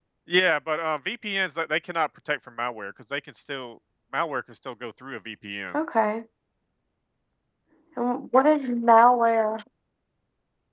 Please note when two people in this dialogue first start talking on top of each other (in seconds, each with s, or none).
none